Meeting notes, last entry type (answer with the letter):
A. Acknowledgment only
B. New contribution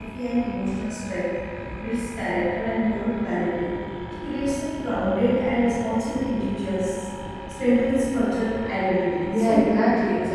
B